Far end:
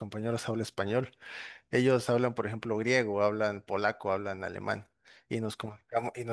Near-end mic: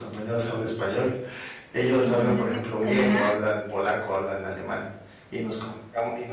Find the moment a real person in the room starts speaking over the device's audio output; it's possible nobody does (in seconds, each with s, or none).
2.0 s